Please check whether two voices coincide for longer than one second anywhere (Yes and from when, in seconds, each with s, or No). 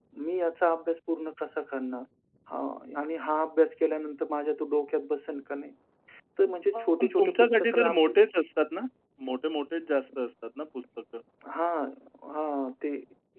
Yes, from 6.8 s